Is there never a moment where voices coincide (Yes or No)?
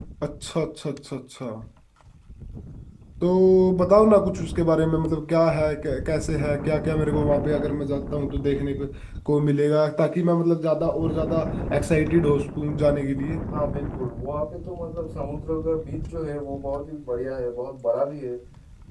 Yes